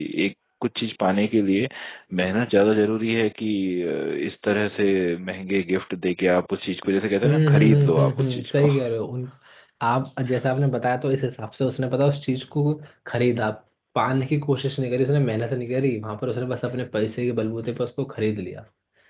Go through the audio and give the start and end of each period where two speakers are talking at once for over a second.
7.2-8.7

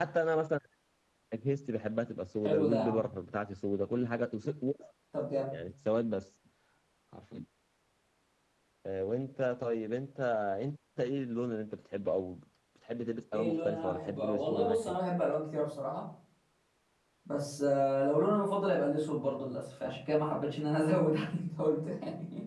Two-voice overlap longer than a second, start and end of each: 13.3-15.0

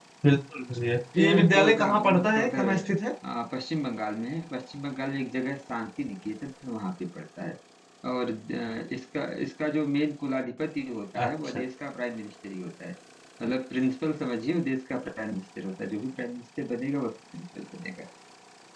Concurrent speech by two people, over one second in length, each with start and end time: 1.2-2.7

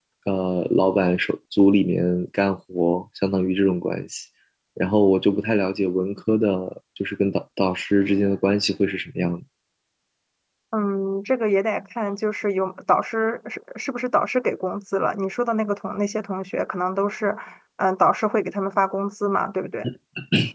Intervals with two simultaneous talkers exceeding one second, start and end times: none

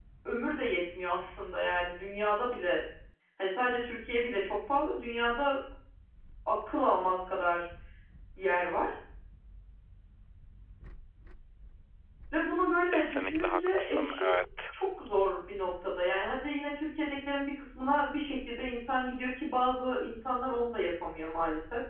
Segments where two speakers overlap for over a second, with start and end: 12.9-14.2

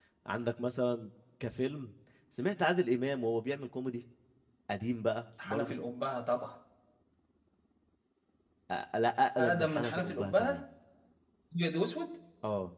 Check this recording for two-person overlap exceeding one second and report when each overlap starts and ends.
9.4-10.6

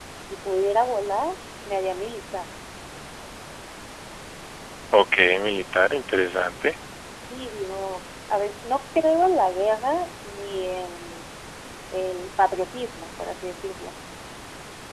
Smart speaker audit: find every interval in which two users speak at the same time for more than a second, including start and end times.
none

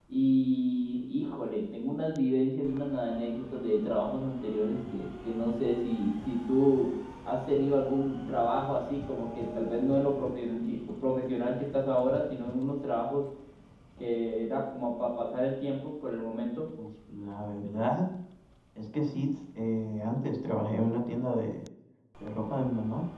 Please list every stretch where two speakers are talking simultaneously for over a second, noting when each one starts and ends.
none

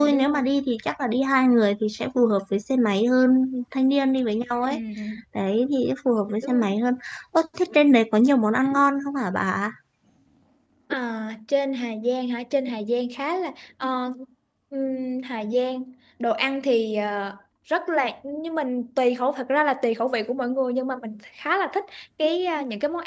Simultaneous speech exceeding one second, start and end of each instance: none

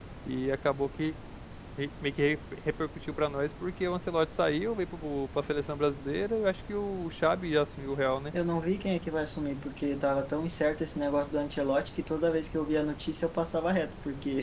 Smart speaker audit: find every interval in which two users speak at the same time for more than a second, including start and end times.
none

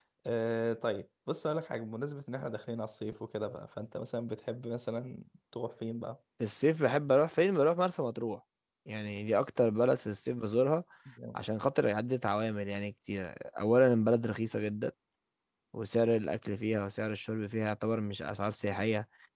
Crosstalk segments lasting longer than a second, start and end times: none

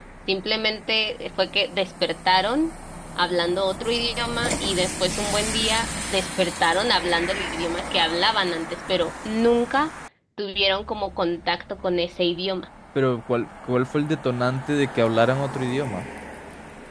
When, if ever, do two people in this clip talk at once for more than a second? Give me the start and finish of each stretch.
none

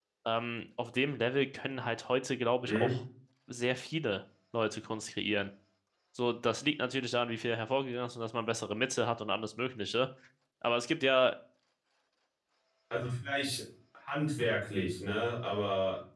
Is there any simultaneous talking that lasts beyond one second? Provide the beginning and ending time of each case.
none

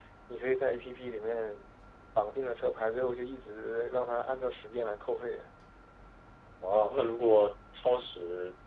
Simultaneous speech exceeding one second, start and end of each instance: none

